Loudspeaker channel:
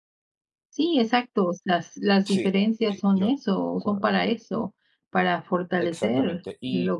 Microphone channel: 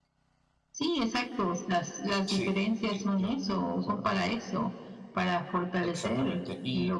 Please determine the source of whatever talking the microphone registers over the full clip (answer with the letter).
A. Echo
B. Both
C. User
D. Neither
A